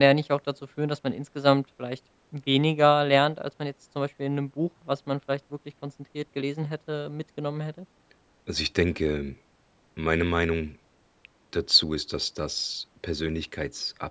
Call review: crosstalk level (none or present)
none